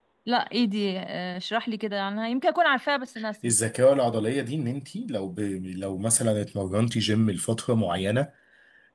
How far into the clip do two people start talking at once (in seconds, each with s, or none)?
none